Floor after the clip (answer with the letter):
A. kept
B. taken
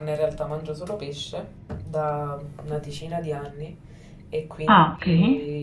A